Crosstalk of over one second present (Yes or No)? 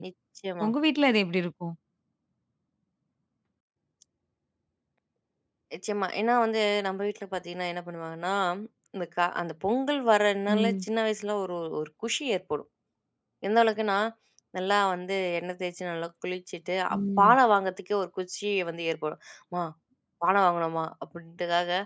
No